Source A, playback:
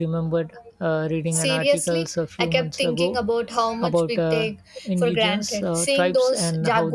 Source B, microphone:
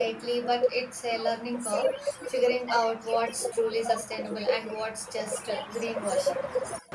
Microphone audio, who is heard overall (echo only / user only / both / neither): both